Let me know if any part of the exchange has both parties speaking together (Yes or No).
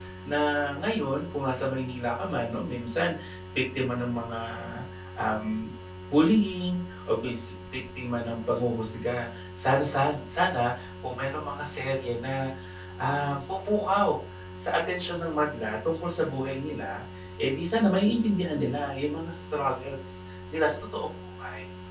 No